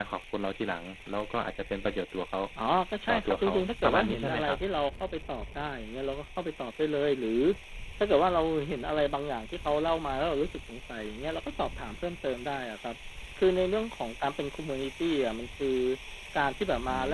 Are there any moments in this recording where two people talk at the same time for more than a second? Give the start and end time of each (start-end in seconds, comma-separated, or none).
3.1-4.6